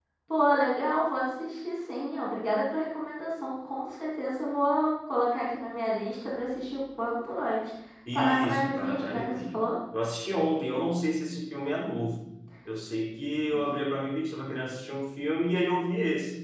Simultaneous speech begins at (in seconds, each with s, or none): 8.1 s